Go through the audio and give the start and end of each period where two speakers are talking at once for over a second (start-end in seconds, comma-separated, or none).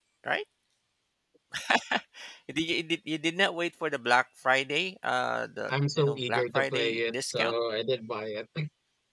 5.7-7.6